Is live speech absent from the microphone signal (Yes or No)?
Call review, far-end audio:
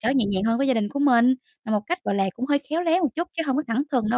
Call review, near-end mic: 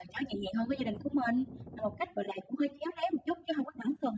Yes